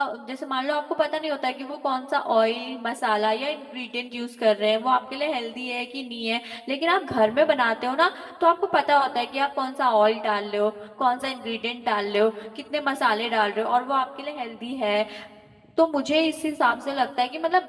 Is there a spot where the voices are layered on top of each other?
No

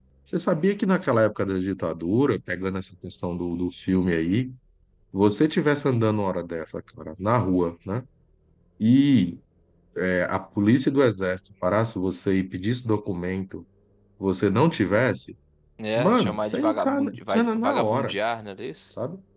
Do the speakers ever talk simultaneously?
Yes, from 16.0 s

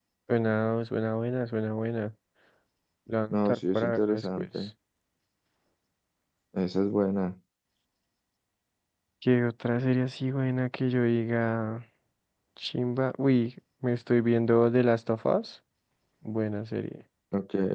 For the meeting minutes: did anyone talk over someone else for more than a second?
Yes, from 3.3 s

